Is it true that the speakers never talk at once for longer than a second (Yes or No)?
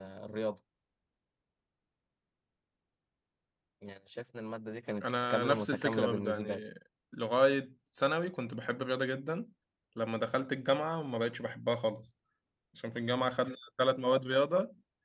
No